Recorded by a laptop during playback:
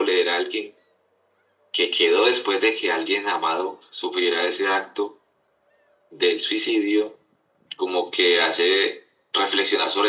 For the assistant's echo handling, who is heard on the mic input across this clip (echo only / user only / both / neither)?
echo only